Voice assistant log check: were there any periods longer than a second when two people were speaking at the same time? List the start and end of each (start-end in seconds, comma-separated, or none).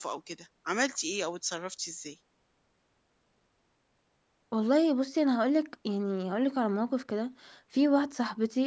none